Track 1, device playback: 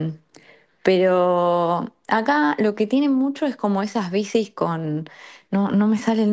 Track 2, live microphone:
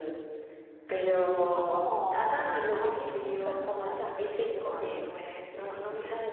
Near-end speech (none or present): present